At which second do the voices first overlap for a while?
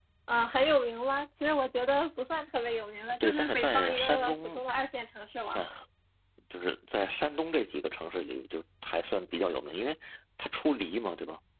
3 s

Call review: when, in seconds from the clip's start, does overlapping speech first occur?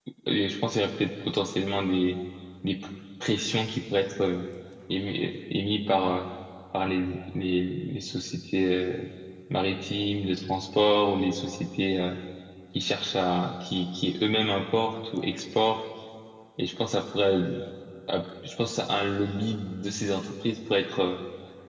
none

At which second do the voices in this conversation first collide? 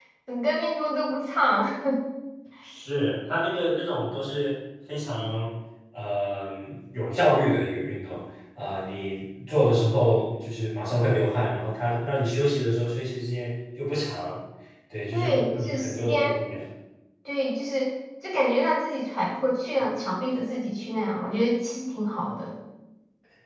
15 s

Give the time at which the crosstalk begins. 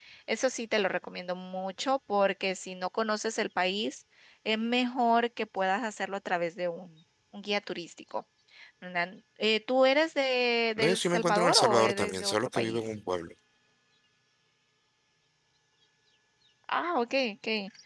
11 s

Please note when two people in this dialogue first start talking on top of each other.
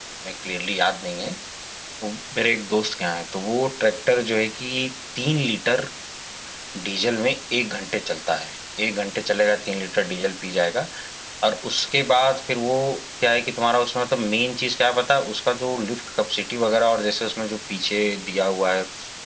none

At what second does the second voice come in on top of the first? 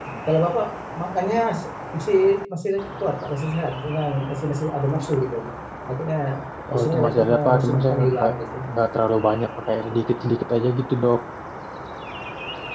7 s

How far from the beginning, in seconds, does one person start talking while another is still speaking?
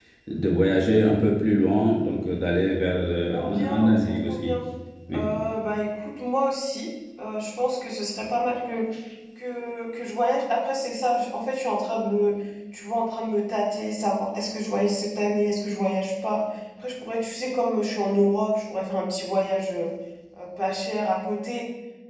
3 s

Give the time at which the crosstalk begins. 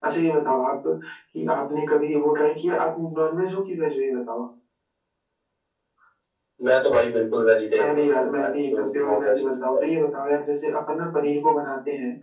8 s

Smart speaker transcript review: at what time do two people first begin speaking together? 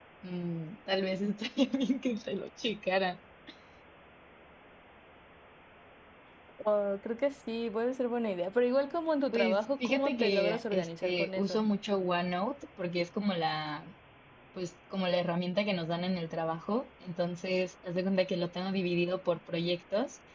9 s

